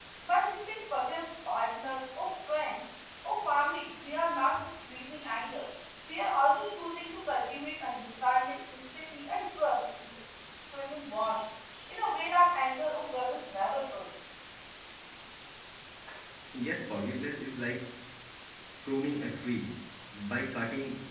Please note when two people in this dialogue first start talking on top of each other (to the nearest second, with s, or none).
none